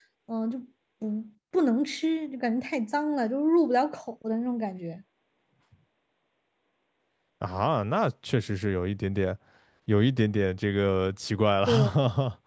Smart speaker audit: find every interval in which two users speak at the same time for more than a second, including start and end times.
none

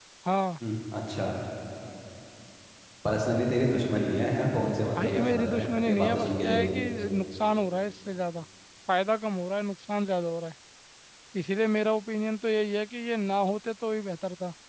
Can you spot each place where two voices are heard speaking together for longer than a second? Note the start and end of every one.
5.0-6.7

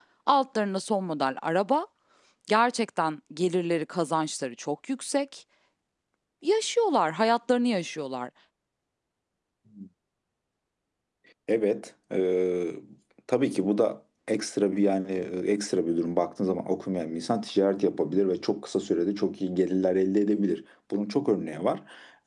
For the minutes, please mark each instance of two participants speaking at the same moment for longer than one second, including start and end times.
none

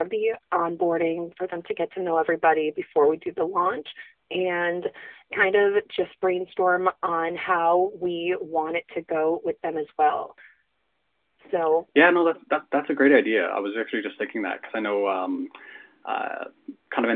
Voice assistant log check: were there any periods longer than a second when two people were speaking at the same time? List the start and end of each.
none

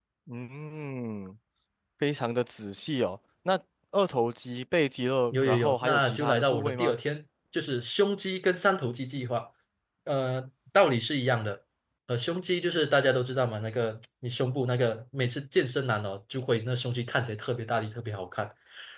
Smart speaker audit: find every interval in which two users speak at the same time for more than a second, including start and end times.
5.3-7.0

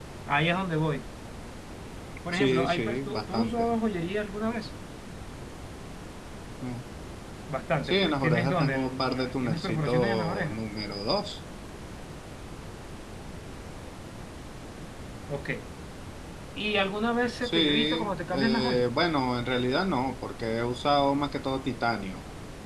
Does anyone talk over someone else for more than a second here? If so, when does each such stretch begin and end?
2.3-3.8, 7.8-10.6, 17.4-18.9

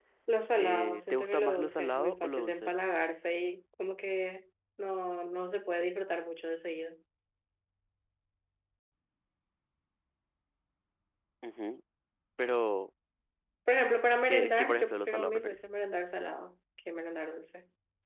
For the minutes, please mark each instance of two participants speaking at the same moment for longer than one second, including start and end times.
0.6-2.7, 14.3-15.6

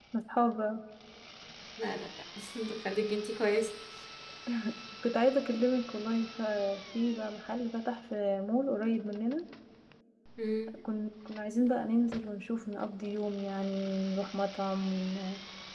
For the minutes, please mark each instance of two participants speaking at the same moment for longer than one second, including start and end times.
none

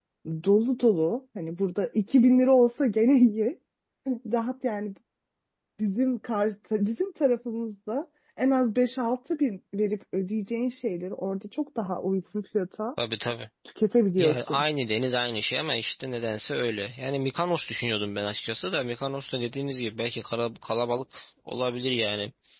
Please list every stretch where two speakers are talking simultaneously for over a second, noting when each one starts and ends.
none

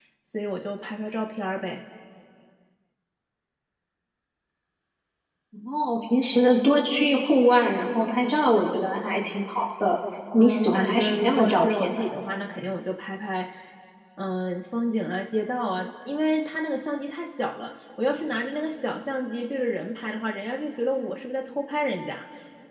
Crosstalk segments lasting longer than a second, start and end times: 10.4-12.0

